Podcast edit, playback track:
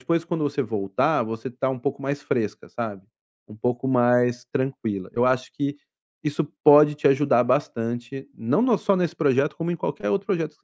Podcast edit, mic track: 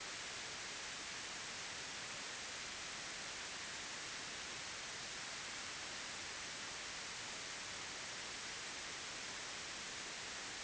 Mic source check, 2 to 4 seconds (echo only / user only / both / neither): neither